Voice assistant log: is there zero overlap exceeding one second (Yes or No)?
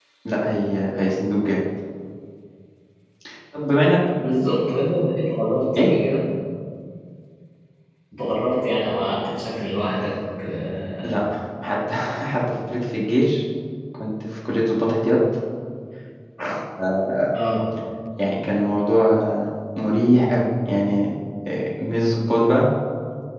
Yes